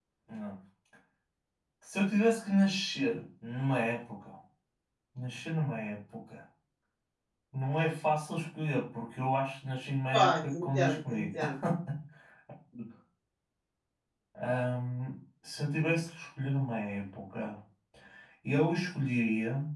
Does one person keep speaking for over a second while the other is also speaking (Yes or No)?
Yes